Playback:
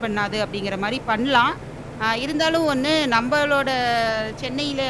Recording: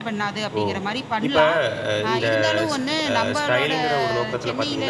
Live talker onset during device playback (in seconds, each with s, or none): 0.6 s